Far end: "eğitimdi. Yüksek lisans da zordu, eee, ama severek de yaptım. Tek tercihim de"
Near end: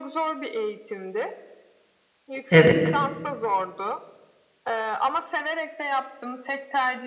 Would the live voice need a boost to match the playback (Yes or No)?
No